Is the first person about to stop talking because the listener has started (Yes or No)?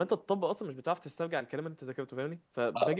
No